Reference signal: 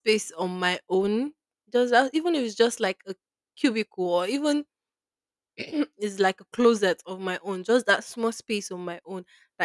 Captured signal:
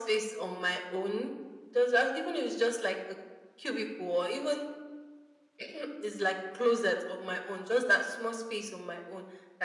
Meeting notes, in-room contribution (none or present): none